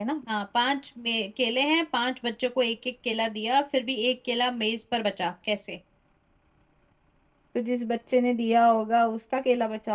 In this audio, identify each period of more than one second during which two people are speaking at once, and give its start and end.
none

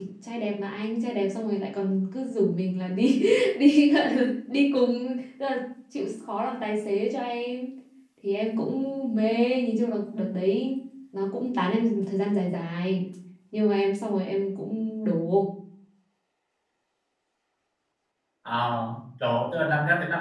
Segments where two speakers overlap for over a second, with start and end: none

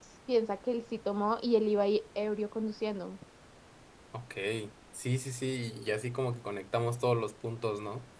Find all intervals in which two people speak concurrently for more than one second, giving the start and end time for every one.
none

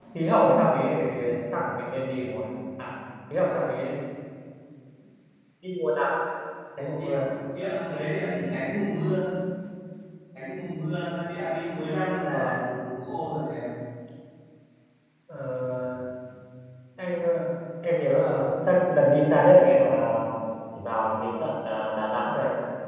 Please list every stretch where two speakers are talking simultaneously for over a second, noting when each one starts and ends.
none

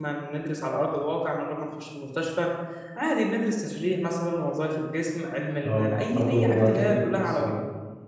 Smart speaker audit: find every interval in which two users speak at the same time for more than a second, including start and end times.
5.7-7.6

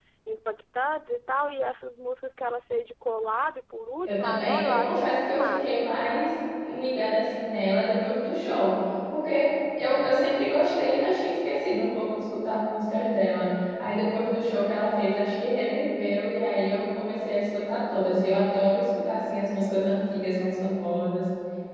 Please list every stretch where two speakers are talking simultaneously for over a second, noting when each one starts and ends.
4.0-5.8

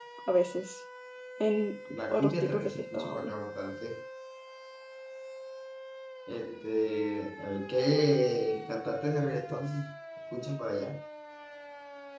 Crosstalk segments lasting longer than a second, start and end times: 2.1-3.3

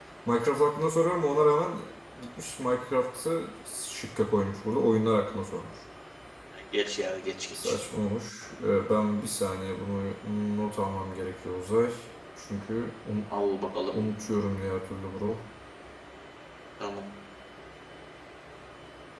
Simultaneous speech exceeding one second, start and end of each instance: none

